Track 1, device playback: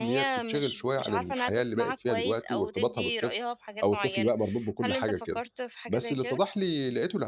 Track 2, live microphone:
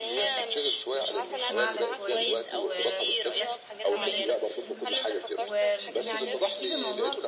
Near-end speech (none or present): present